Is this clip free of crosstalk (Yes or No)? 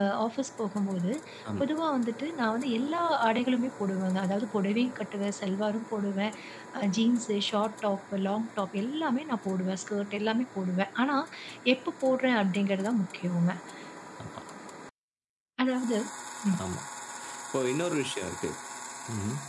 Yes